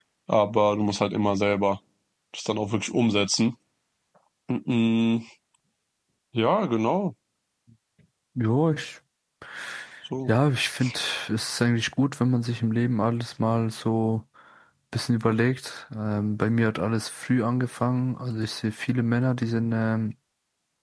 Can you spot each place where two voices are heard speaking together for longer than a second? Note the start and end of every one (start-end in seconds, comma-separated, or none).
none